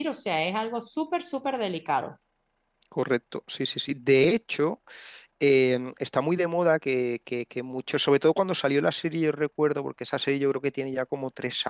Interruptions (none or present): none